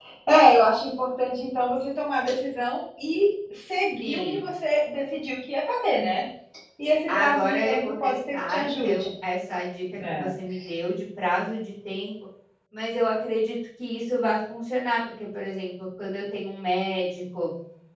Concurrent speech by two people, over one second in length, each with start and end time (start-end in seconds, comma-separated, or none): 7.2-9.1